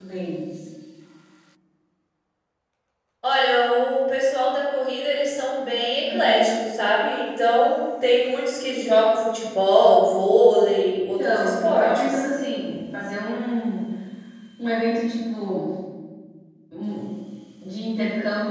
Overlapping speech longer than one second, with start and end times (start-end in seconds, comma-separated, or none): 11.0-12.2